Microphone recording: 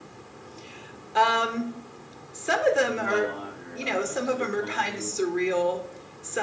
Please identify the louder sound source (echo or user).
echo